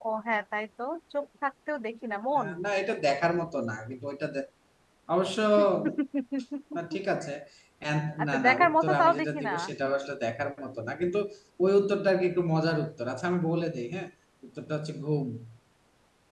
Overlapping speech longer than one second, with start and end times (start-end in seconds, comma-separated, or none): 8.2-9.5